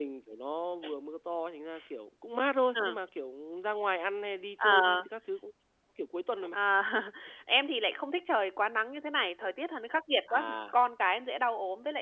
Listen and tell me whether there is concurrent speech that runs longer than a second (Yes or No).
No